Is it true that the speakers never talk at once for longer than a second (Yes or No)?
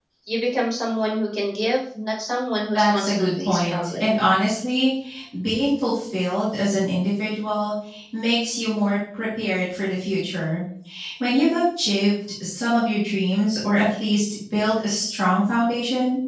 No